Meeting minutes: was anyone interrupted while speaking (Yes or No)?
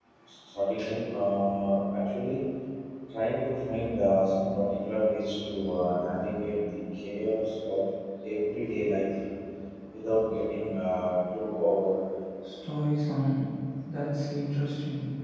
No